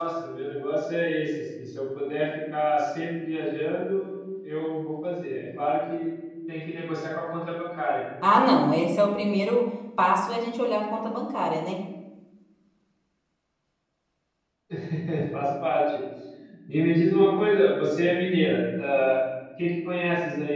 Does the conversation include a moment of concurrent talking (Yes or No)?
No